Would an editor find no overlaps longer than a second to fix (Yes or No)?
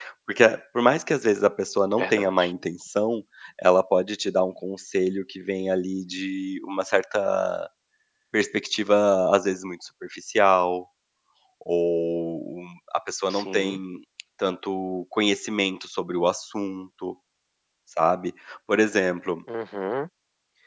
Yes